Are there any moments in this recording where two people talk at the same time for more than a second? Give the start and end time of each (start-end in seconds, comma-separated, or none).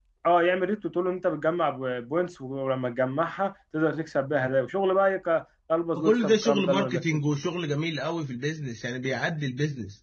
6.0-7.2